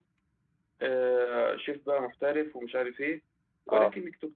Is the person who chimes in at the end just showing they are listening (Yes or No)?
Yes